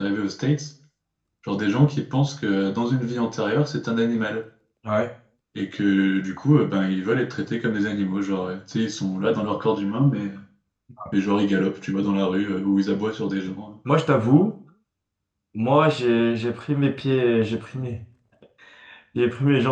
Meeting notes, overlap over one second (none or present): none